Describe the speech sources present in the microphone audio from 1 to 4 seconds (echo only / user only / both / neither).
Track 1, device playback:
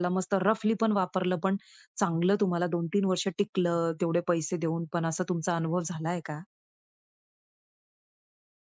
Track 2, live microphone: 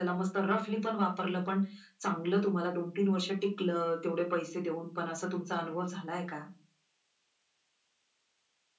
echo only